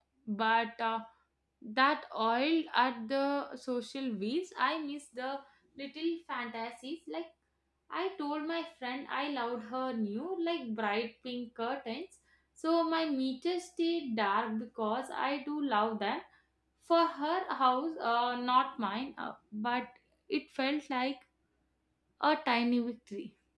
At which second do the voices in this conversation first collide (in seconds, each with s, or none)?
none